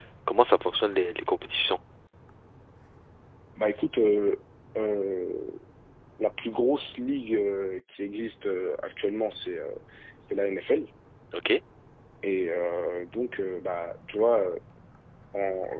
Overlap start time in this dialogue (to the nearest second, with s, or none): none